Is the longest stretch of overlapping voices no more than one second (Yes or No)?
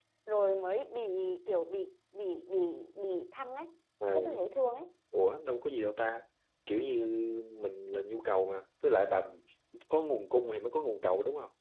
Yes